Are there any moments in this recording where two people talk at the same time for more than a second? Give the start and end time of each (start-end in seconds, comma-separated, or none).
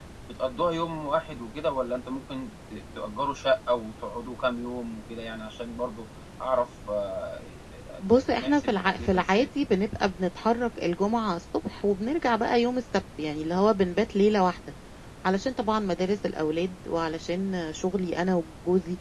8.1-9.5